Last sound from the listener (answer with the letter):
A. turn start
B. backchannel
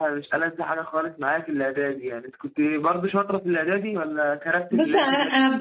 A